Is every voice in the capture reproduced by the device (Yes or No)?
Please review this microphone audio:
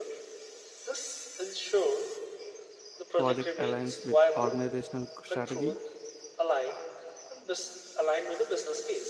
No